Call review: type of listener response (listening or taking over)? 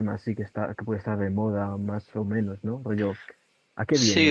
taking over